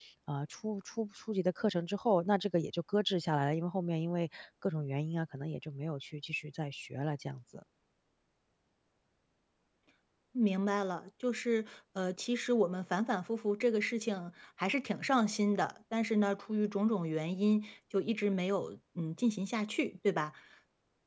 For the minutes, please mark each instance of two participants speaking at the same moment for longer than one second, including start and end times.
none

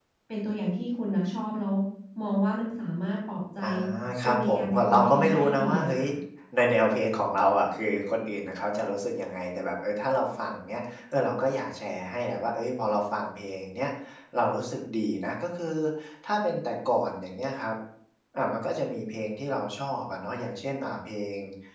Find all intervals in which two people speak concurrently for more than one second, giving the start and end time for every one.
4.2-6.0

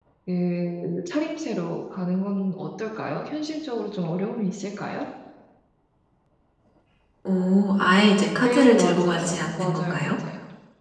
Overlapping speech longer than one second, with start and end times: 8.4-10.1

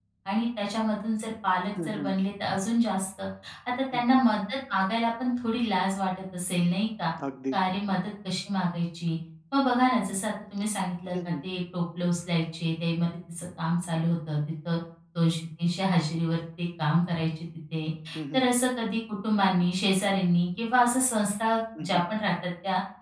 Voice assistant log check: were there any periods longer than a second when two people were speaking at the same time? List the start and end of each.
none

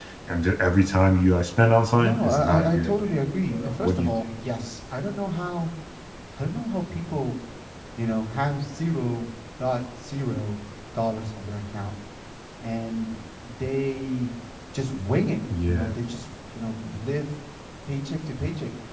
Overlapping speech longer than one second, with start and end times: 2.0-4.1

